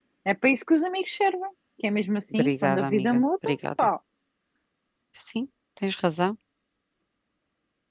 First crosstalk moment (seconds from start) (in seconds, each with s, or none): 2.4 s